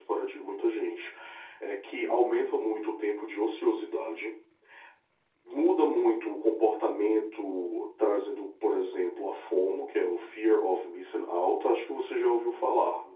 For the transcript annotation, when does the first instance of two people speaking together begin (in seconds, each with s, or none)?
none